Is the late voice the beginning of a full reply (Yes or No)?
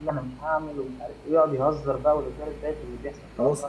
Yes